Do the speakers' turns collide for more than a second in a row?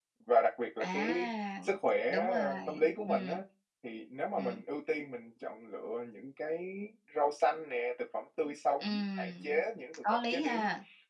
Yes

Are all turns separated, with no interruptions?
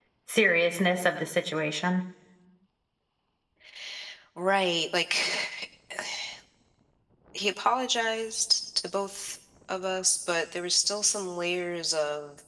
Yes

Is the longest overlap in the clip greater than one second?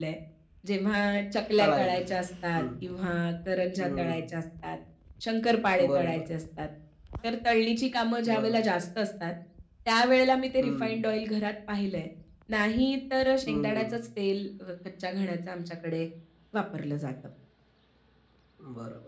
No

